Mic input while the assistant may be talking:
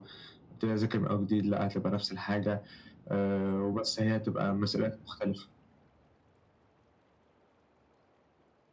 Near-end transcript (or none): none